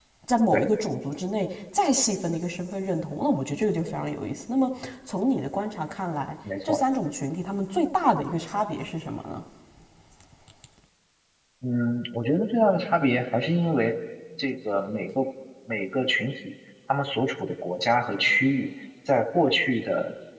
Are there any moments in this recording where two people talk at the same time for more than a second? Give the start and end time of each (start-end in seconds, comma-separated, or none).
none